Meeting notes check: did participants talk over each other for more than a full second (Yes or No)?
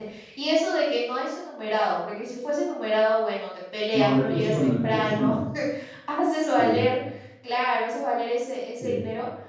Yes